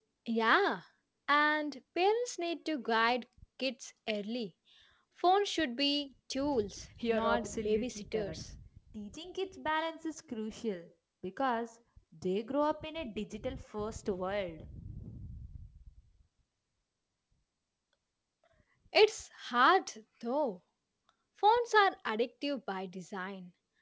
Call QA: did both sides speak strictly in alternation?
No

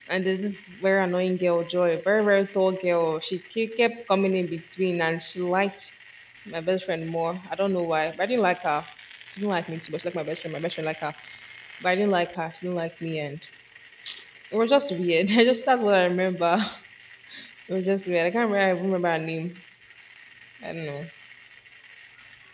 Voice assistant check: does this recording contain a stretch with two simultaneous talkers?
No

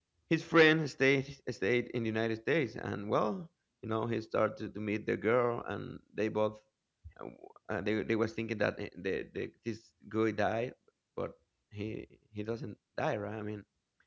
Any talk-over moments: No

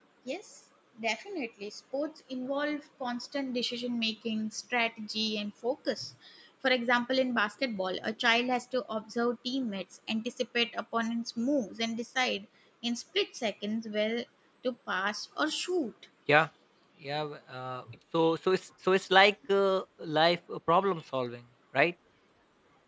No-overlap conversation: Yes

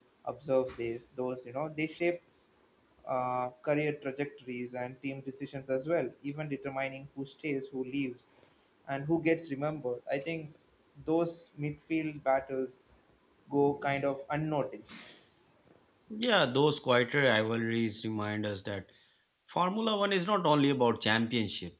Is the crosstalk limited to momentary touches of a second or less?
Yes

